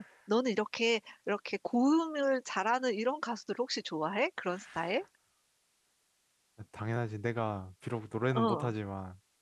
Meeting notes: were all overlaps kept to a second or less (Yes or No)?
Yes